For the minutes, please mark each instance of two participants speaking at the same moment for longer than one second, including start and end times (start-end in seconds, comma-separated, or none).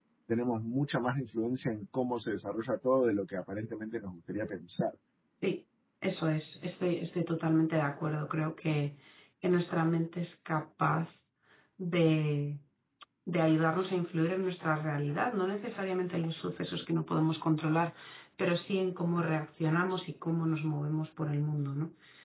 none